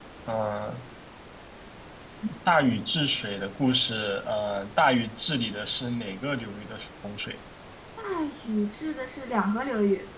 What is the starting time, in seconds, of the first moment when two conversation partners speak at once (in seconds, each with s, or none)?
none